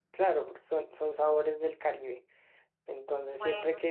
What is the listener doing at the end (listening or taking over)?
listening